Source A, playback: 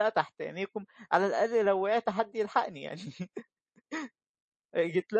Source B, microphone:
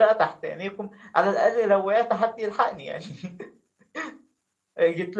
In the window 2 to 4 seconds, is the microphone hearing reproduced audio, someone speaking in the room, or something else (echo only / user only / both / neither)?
echo only